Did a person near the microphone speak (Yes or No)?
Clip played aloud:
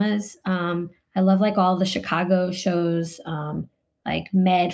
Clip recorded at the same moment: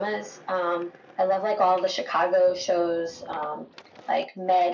No